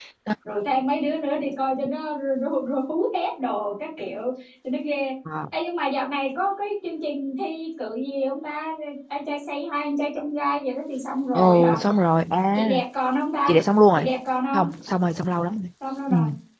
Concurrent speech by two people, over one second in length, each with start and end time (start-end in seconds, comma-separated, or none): none